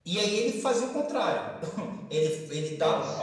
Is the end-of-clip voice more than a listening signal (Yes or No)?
No